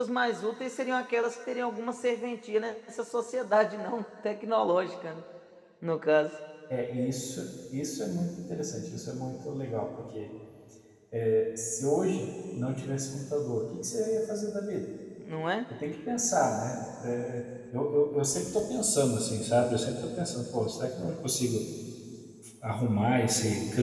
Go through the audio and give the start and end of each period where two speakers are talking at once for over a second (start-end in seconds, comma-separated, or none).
none